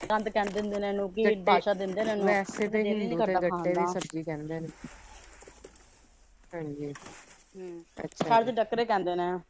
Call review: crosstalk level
present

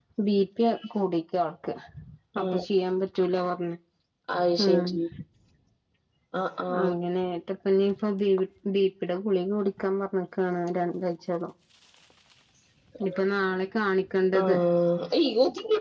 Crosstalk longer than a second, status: none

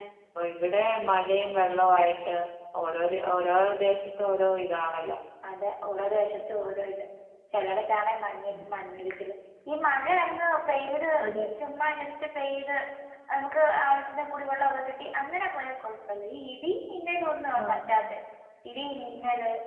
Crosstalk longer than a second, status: none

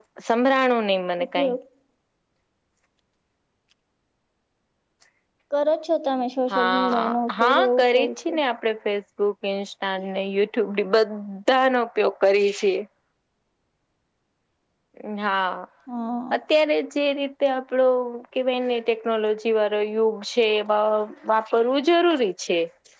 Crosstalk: present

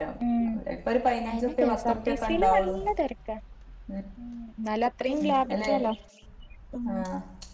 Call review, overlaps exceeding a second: present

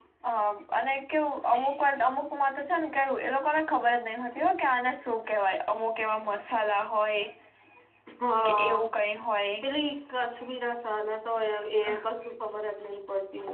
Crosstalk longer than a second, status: none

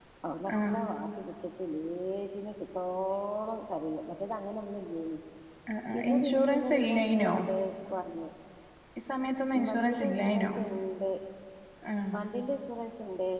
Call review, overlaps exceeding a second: present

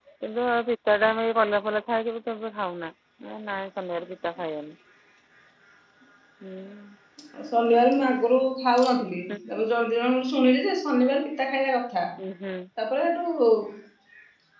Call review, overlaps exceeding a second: none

